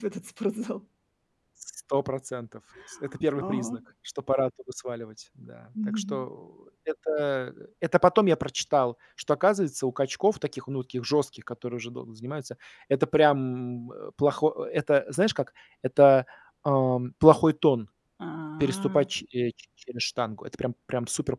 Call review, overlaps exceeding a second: none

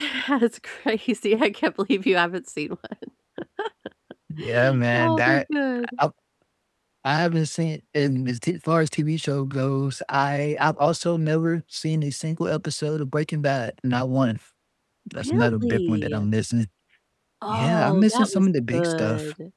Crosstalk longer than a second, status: present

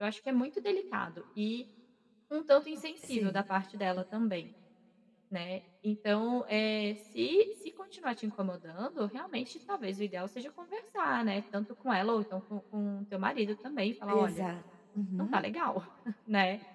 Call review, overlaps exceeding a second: none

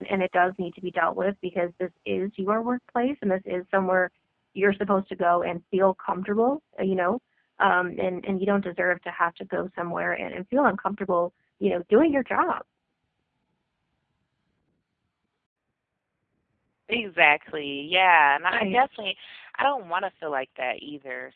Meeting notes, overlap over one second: none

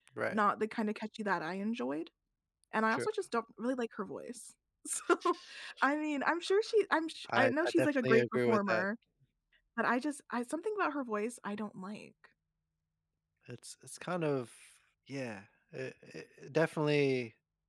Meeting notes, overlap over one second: present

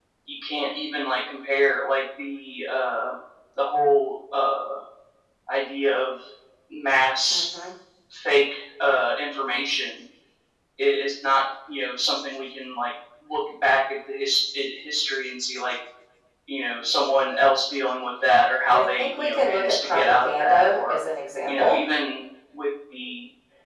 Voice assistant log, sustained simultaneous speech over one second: present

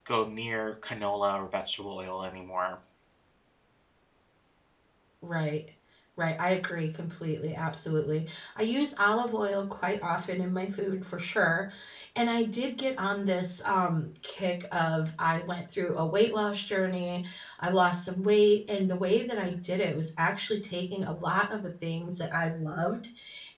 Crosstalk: none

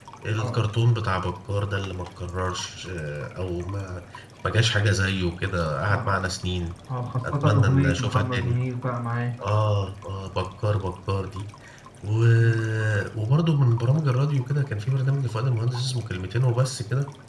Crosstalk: present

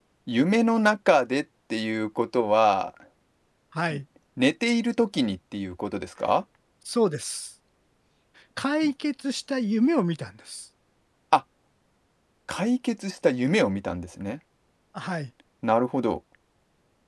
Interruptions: none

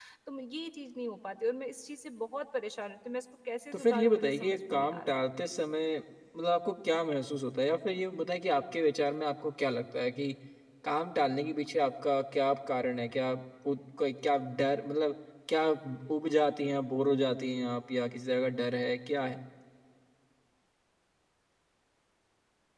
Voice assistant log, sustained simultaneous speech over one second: present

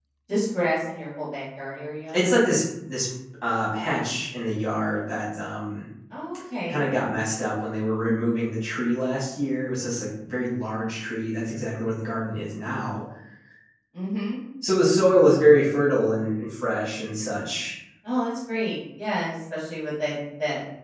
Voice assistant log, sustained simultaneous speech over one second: none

